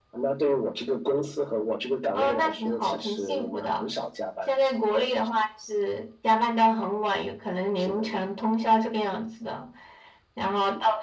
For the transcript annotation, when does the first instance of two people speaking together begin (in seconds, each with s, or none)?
2.1 s